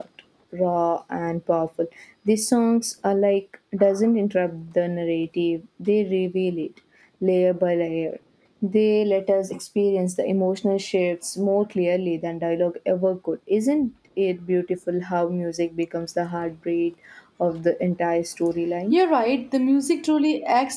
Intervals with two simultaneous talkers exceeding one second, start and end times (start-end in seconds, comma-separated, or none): none